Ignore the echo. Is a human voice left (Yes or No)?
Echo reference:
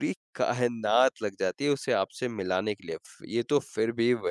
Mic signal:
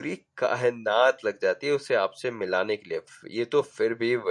No